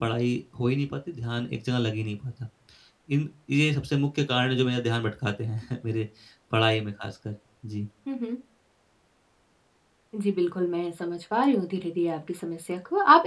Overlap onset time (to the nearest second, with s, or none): none